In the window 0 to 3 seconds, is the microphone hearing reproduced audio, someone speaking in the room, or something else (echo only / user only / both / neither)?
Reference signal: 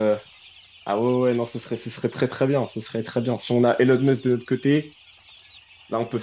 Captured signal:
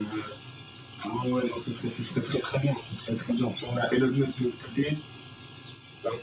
echo only